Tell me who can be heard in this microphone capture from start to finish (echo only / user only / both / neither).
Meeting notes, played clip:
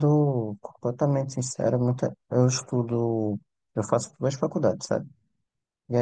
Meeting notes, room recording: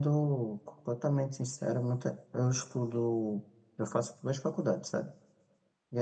echo only